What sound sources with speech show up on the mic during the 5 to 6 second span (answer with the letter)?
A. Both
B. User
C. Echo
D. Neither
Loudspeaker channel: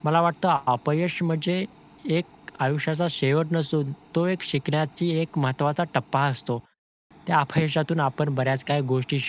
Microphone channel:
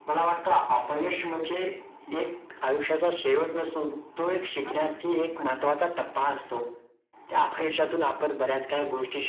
A